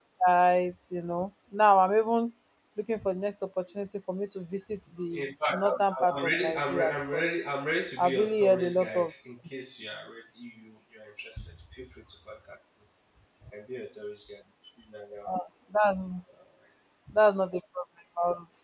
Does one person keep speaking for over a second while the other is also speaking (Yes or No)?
Yes